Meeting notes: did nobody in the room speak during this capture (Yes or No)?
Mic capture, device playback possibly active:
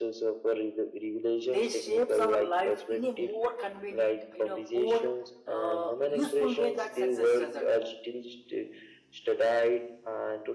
No